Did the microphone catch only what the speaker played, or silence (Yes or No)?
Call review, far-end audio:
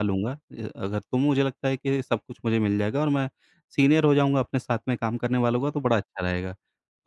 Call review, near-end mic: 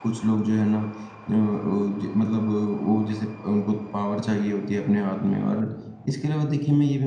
No